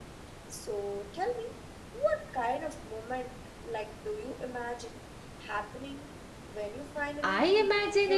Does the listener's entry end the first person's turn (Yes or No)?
Yes